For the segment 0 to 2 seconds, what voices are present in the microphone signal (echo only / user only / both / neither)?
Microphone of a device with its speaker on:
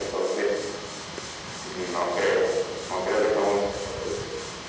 echo only